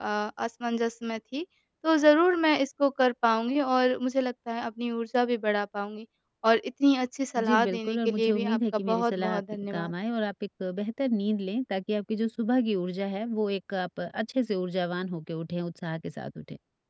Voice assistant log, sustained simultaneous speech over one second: present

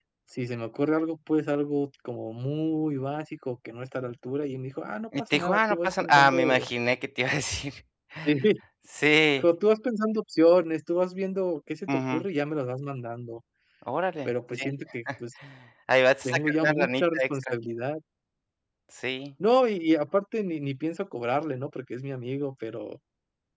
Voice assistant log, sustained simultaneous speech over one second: present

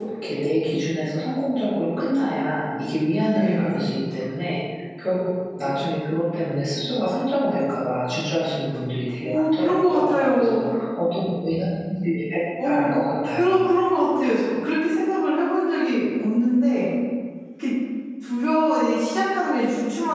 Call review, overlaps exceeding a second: present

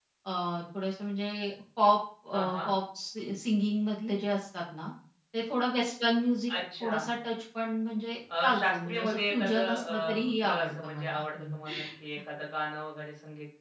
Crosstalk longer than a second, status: present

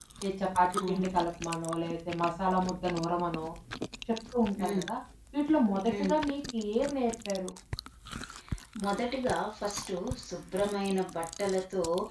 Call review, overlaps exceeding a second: none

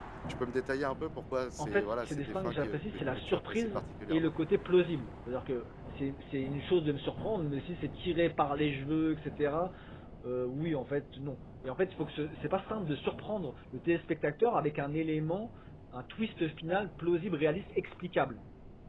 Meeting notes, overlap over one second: present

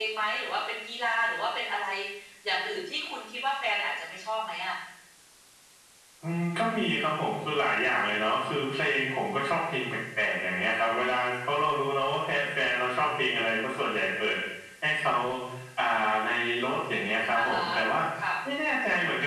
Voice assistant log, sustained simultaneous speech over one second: none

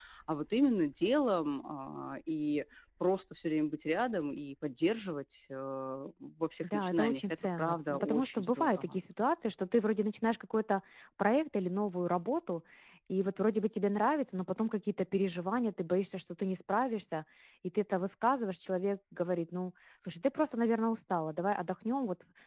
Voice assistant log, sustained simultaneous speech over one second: present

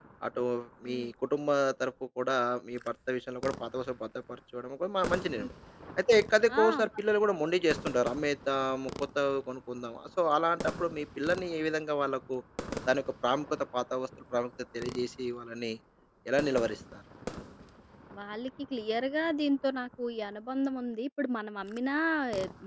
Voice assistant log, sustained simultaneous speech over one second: none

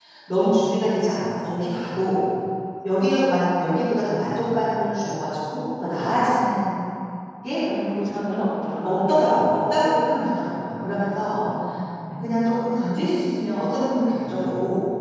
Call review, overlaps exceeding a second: none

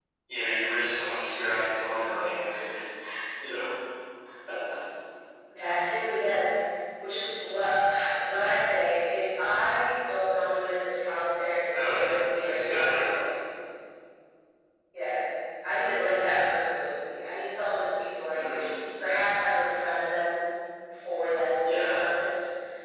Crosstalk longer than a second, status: present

